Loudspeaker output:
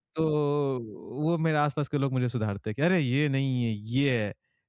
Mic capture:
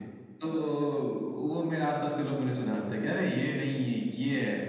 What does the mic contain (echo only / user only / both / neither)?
echo only